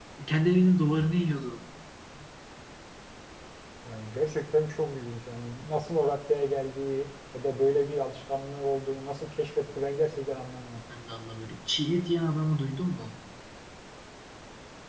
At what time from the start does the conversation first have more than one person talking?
none

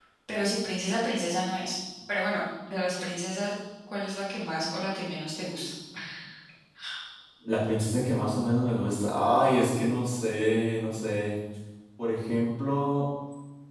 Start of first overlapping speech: none

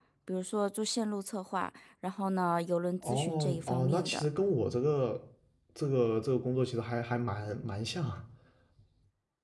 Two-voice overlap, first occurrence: 3.0 s

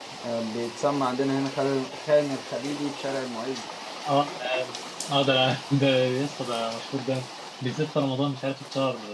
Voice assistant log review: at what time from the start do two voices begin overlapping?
none

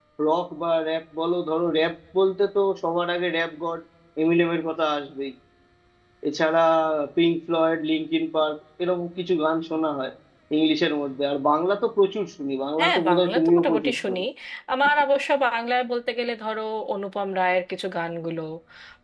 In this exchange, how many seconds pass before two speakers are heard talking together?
12.8 s

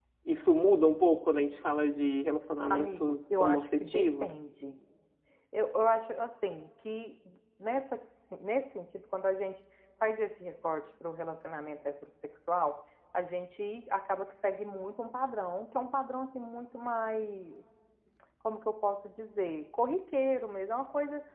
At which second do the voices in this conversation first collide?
2.7 s

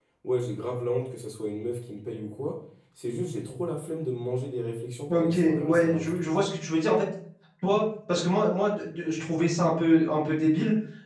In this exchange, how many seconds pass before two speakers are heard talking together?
5.1 s

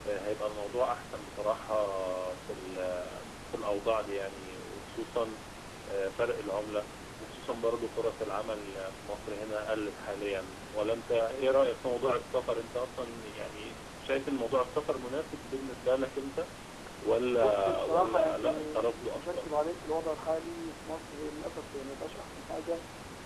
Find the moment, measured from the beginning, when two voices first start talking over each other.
17.4 s

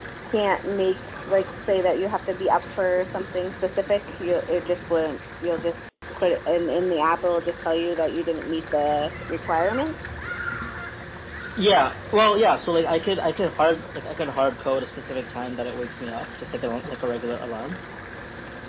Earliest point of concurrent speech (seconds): none

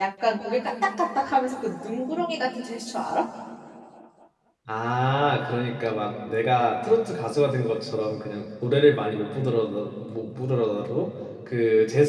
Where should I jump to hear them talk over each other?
none

